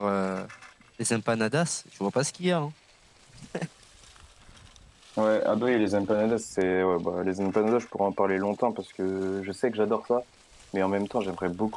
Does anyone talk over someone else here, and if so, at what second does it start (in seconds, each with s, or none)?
none